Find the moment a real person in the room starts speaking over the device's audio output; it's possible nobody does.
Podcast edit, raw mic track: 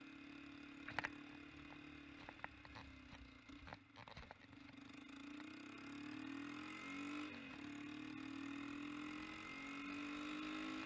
none

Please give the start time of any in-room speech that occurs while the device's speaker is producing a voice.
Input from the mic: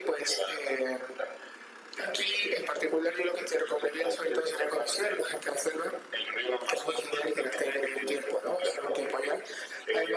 none

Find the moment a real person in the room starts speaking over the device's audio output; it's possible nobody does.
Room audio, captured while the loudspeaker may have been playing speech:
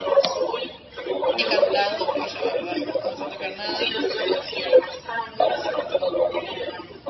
1.4 s

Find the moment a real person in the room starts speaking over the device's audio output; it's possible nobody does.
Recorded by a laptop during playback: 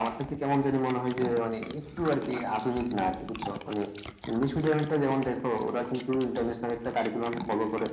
none

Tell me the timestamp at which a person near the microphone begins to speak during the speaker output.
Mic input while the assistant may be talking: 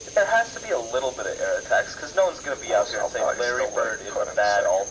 none

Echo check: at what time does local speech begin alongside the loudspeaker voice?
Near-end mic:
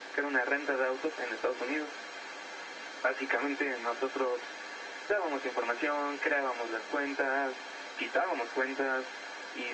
none

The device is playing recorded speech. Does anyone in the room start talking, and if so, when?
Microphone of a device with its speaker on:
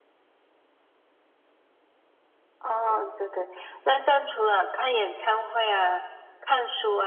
none

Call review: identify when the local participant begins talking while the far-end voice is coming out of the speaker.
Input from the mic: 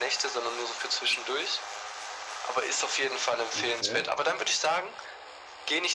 3.5 s

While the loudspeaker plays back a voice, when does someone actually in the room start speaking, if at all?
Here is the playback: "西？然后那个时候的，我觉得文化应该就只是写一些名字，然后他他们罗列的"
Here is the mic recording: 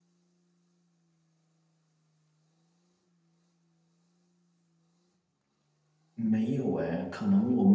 6.2 s

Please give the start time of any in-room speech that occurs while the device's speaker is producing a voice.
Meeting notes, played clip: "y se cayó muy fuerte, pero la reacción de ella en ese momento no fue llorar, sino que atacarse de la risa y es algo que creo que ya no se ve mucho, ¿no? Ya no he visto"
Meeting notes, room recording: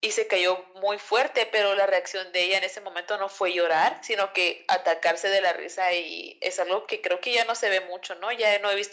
none

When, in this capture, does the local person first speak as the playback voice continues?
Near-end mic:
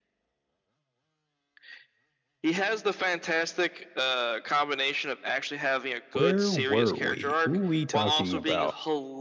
6.1 s

